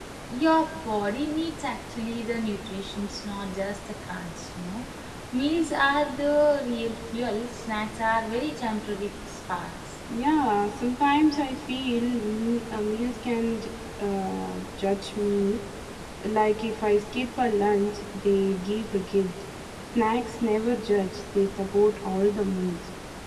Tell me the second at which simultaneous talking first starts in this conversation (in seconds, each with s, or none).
none